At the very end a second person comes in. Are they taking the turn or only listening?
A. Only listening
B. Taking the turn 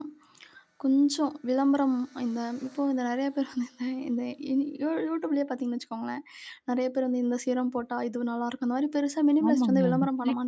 B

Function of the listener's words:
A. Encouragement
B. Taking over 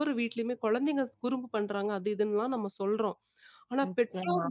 A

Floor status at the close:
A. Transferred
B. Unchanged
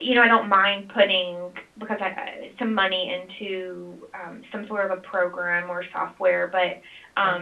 B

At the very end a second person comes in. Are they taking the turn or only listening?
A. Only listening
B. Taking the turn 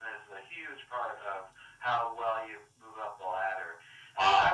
B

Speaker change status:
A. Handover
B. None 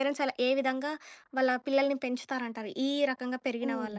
A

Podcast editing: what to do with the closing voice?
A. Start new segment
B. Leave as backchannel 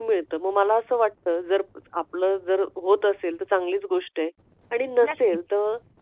B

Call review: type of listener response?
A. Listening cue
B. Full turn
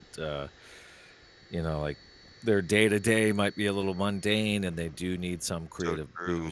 A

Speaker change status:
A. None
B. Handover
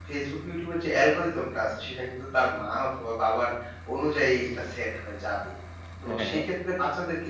A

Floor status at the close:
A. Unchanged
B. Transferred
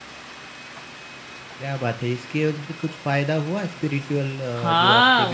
B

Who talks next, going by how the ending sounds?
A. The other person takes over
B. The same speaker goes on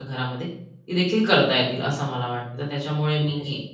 B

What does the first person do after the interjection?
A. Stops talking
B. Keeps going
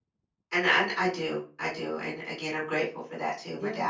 A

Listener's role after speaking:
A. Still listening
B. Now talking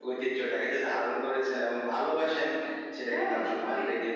A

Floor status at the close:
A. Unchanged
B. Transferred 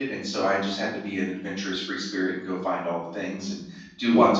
A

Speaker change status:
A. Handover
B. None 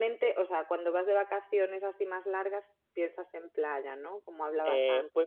A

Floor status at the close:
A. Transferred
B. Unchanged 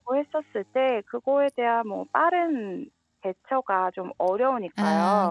A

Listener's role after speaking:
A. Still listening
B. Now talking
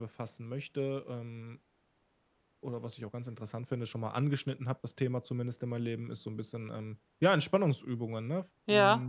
B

